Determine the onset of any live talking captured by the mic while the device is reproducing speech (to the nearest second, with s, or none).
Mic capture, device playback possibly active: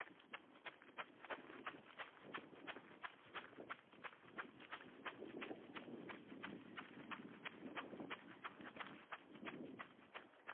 none